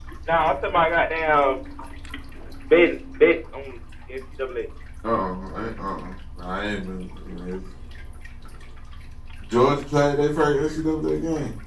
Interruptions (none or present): none